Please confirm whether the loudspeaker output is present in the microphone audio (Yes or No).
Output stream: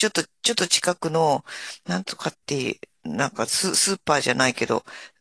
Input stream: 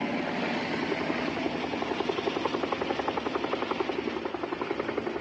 No